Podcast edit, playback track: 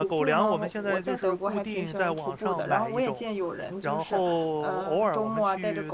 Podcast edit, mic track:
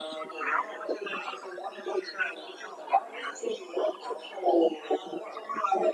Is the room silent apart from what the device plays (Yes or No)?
Yes